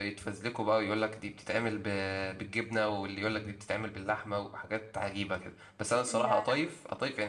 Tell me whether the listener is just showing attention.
Yes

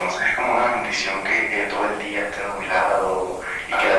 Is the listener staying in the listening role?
Yes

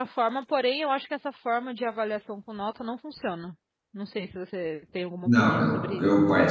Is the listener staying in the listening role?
No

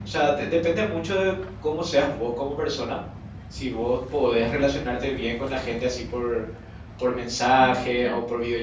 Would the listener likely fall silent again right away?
Yes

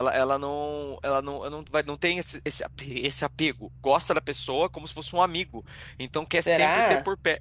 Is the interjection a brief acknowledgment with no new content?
Yes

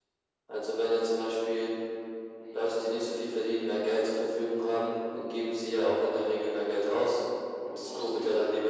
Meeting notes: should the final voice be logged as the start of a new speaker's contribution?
Yes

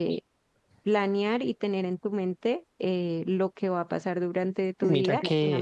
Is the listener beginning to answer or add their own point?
Yes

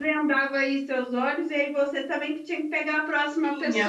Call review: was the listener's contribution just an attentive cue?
No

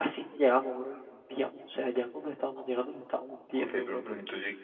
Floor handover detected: Yes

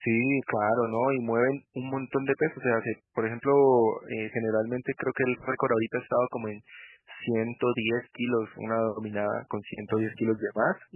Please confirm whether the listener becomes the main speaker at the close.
No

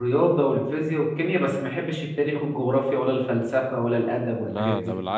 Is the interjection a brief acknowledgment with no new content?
No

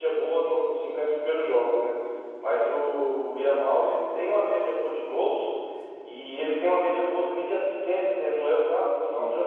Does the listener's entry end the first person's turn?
No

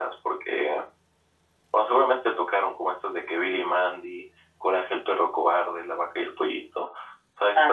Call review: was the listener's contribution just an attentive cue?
Yes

